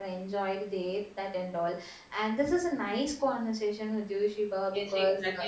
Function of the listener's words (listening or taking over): taking over